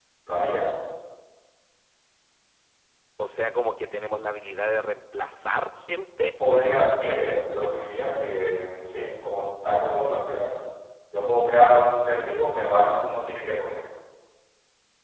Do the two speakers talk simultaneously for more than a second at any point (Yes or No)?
Yes